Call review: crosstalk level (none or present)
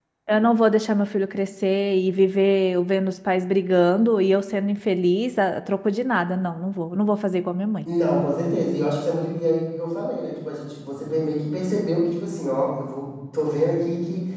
none